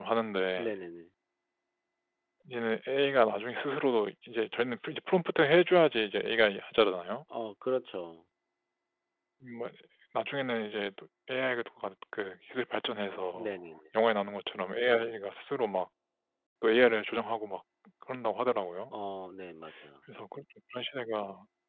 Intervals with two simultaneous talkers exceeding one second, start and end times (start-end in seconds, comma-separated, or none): none